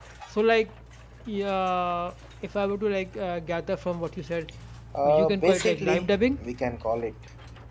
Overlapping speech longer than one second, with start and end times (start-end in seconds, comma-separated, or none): 5.0-6.4